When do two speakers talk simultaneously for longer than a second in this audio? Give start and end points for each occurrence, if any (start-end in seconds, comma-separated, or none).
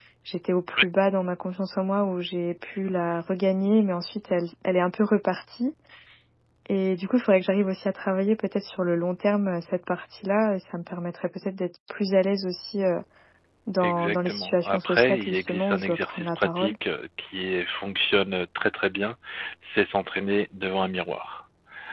13.8-16.7